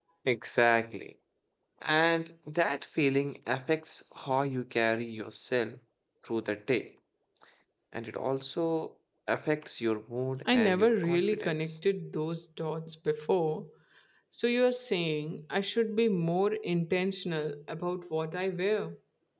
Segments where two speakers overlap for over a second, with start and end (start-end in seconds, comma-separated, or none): 10.5-11.8